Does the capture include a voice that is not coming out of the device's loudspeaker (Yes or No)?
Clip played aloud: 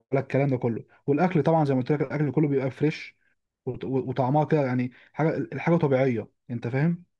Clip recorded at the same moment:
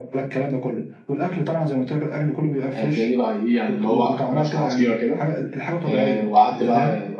Yes